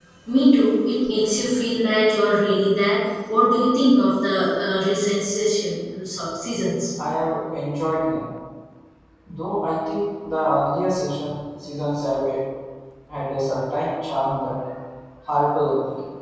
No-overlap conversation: Yes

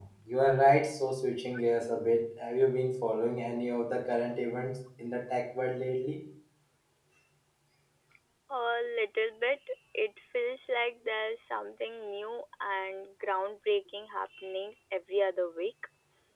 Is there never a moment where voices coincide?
Yes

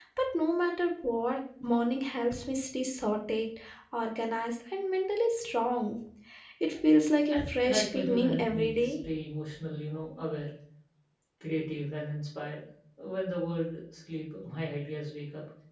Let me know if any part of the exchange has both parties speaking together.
Yes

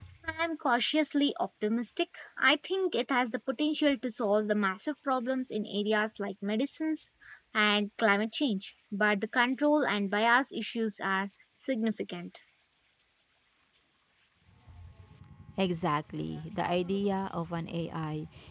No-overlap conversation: Yes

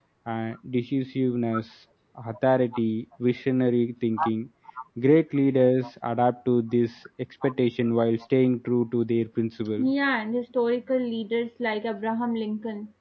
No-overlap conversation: Yes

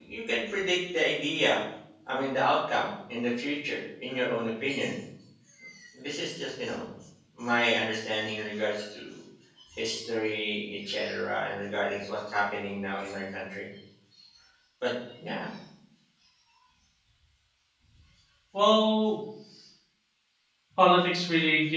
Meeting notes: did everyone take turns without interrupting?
Yes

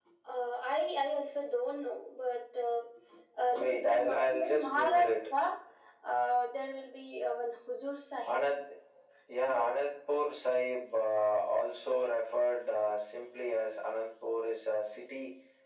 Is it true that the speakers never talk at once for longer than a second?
No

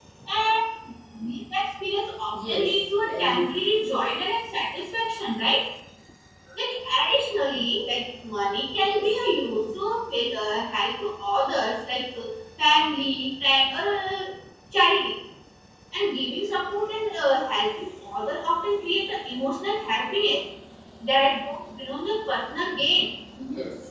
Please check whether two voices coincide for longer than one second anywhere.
Yes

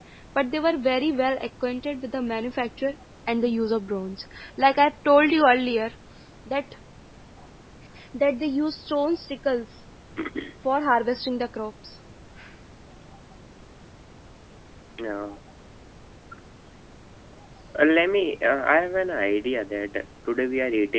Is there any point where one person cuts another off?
No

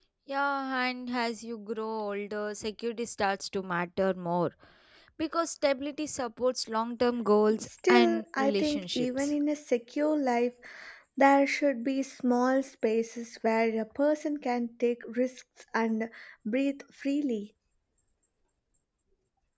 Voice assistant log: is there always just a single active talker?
No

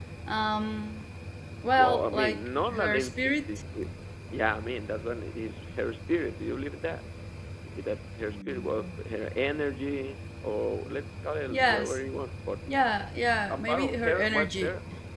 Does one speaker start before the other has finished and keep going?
Yes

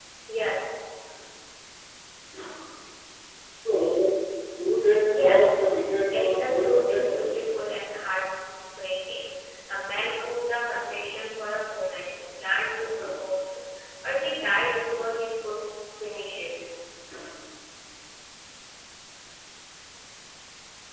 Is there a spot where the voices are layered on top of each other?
Yes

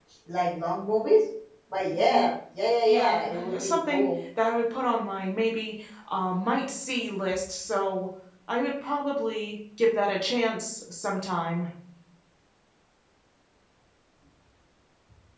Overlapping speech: Yes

